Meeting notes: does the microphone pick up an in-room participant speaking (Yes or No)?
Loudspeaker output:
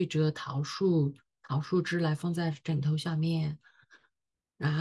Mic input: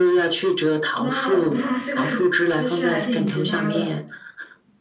Yes